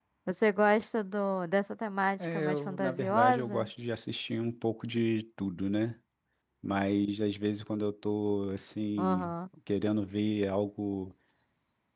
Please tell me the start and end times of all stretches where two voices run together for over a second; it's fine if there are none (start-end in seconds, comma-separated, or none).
2.2-3.7